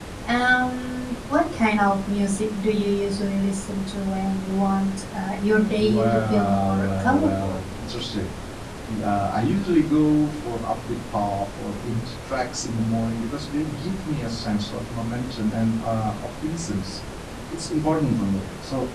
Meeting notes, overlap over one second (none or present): present